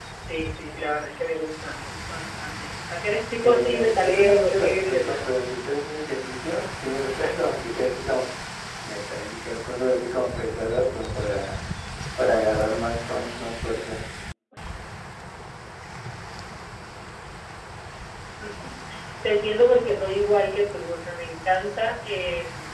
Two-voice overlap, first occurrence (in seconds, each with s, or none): 3.4 s